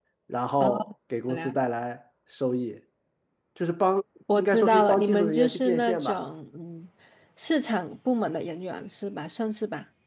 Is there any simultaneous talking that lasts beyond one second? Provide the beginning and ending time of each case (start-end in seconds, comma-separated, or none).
4.4-6.2